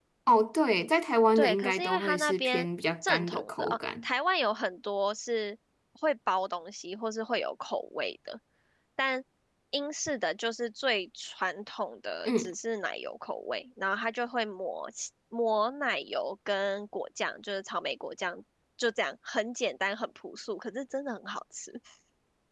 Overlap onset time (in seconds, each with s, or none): 1.4 s